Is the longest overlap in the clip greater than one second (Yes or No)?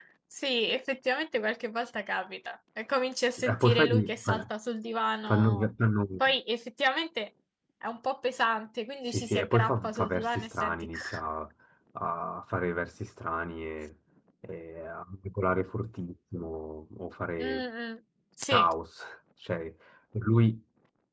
Yes